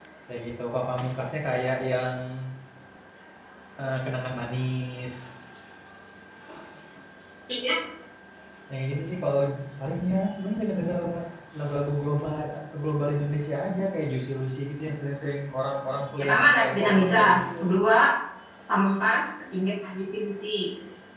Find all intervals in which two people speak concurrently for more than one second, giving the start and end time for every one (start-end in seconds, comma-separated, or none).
15.9-17.4